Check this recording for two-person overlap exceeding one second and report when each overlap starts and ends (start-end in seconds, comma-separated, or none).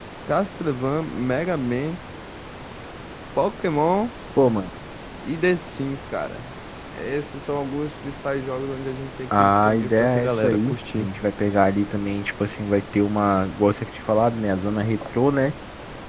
9.4-11.1